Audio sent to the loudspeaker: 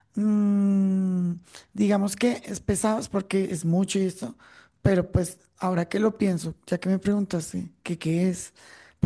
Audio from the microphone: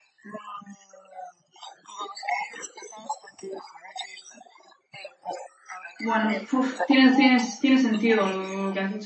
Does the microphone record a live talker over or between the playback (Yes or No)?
Yes